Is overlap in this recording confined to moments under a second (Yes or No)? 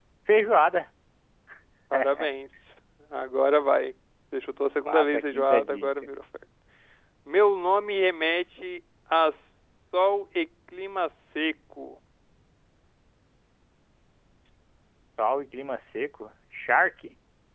No